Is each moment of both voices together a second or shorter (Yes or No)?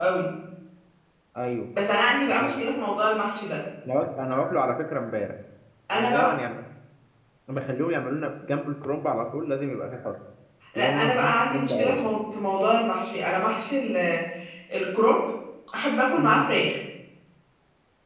No